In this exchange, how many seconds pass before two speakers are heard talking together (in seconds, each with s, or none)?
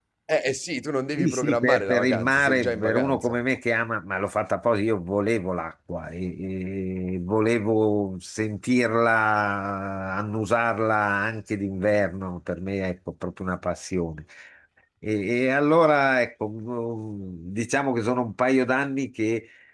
1.2 s